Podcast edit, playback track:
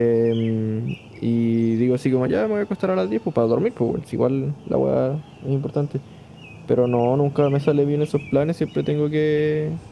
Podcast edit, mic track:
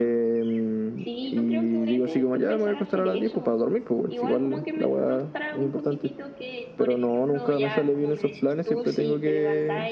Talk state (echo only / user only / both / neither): both